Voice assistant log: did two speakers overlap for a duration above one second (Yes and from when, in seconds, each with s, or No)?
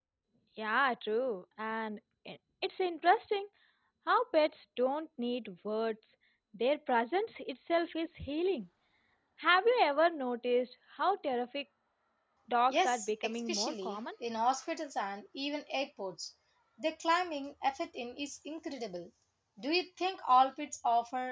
Yes, from 12.7 s